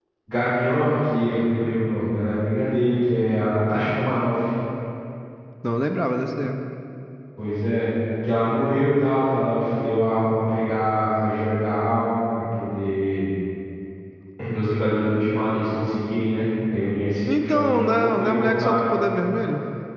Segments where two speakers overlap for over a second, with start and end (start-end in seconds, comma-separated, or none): 17.3-18.8